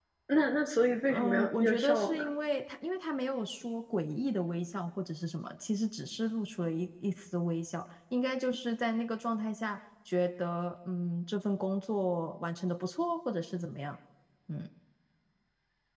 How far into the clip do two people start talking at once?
1.1 s

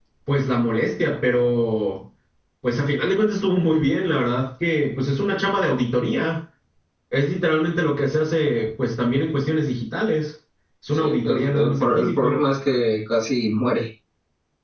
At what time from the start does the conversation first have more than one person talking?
10.9 s

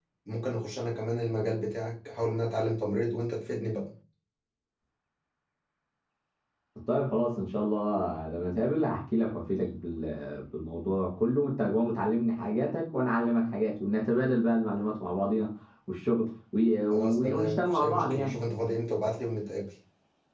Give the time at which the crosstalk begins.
16.9 s

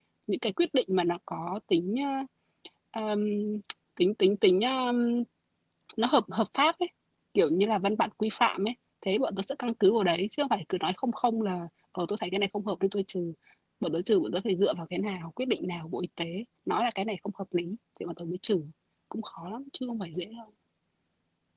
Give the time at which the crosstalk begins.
none

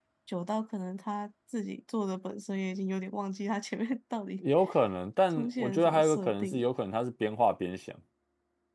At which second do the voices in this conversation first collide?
5.3 s

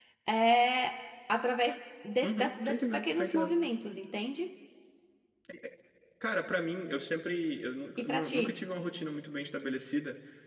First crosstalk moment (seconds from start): 2.2 s

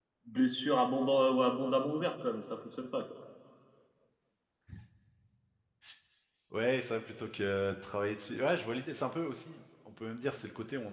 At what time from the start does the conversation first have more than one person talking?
none

